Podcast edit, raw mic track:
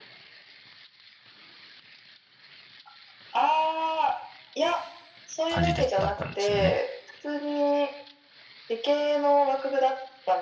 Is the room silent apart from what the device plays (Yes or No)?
No